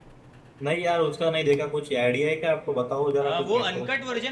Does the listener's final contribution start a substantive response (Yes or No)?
Yes